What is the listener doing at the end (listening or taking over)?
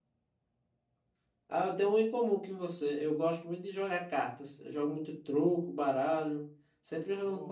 listening